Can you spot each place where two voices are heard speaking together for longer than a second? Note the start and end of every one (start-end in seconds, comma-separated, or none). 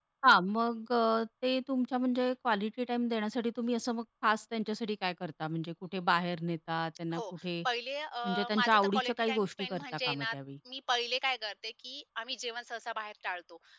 8.2-10.3